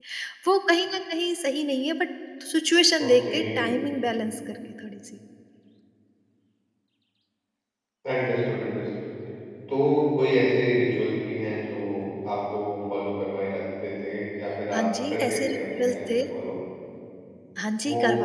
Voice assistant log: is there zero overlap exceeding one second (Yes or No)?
No